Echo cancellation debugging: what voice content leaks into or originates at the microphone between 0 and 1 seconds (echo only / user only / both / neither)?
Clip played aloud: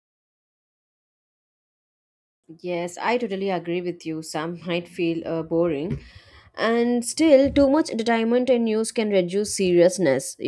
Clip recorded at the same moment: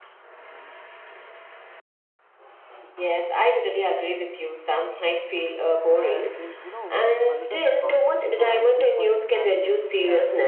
neither